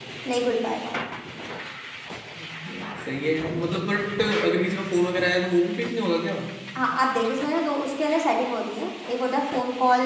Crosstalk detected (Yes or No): No